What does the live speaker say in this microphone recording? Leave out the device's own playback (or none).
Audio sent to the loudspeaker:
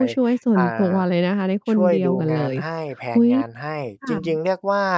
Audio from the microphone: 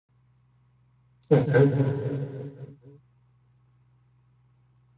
อือฮึ